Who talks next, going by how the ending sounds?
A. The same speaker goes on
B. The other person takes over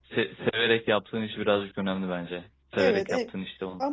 B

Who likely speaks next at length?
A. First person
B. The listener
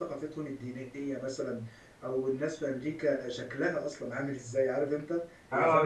B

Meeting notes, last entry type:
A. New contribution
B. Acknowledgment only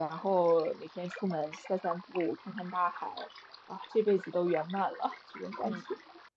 A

